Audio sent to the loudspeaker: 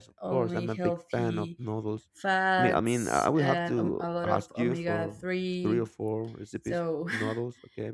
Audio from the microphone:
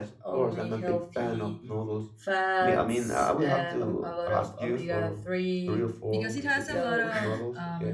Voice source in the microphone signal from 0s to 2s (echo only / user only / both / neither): echo only